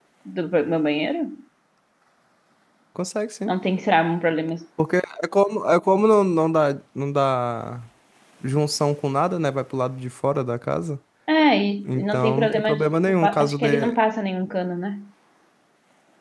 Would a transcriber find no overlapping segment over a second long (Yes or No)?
No